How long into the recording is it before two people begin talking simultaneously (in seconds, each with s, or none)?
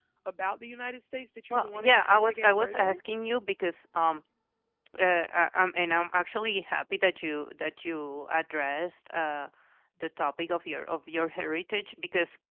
1.5 s